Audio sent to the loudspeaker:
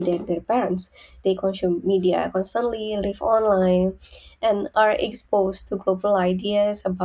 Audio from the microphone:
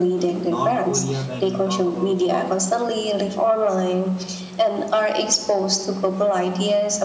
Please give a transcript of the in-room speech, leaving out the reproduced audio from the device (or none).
North Korea, when we talk about so,